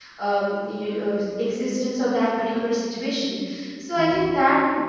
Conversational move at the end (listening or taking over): listening